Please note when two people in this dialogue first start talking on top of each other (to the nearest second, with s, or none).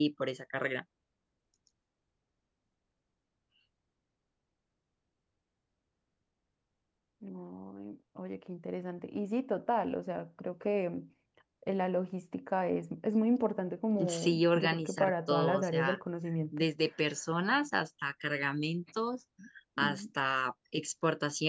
14 s